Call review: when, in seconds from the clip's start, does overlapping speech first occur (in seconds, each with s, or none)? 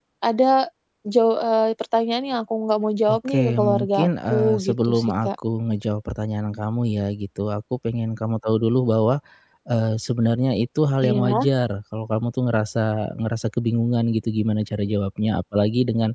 3.1 s